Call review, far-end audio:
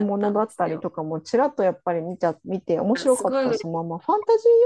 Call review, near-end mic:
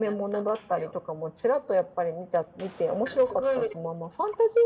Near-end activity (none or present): none